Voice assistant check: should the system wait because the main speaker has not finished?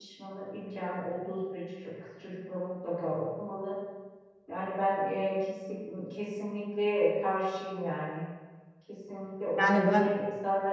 Yes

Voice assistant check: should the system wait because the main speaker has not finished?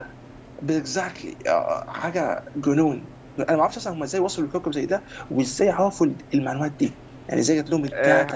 No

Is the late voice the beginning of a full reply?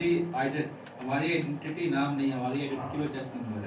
Yes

